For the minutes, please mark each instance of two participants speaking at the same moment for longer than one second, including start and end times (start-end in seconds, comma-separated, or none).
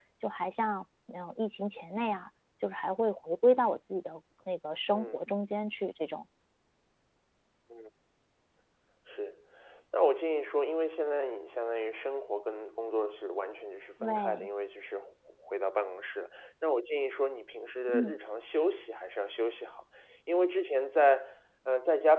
none